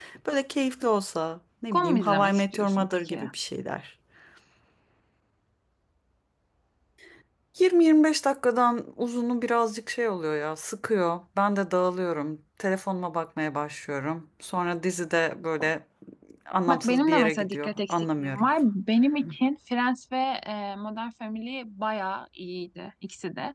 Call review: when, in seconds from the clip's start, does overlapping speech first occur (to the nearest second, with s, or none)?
2 s